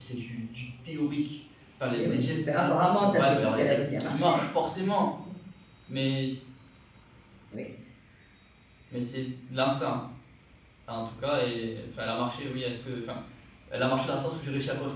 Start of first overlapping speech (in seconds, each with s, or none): 1.9 s